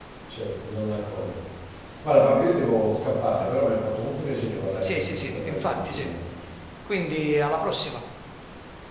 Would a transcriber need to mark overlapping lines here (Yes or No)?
Yes